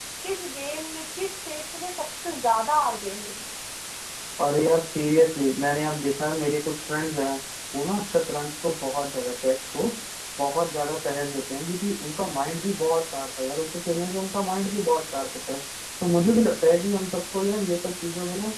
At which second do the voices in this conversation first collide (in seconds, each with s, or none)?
none